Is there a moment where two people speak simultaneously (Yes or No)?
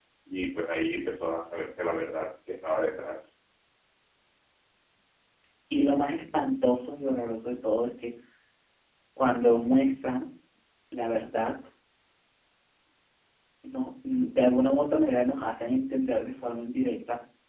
No